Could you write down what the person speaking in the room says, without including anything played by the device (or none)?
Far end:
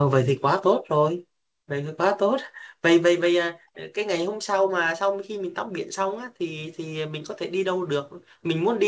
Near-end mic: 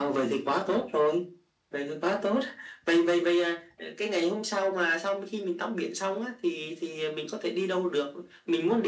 none